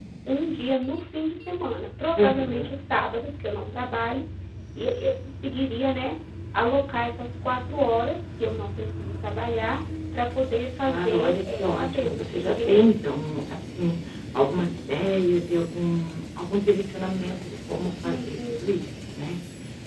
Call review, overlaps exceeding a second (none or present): present